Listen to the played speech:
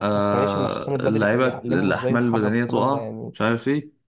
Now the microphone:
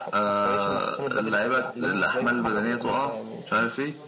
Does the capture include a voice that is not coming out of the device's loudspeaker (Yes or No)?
Yes